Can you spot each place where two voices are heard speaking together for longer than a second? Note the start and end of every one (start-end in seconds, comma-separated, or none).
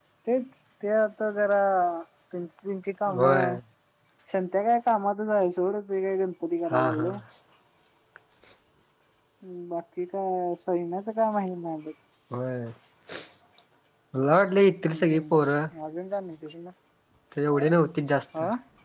none